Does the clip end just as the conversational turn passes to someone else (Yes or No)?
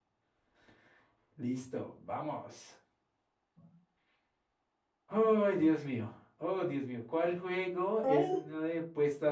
No